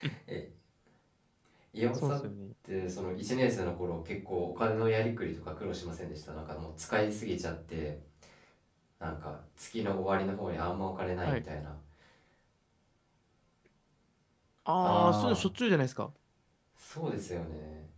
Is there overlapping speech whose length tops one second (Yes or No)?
No